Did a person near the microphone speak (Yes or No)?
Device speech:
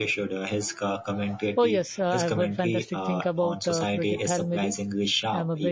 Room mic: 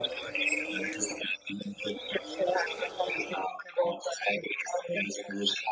No